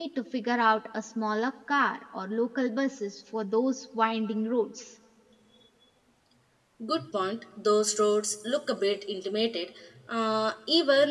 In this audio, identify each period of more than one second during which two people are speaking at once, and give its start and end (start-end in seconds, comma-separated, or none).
none